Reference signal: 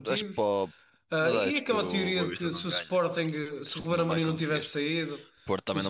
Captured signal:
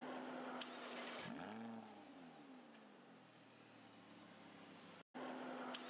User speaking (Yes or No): No